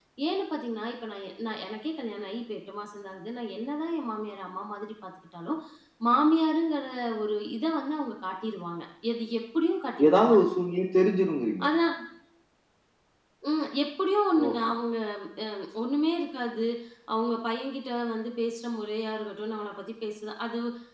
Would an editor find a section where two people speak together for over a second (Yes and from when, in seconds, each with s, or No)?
No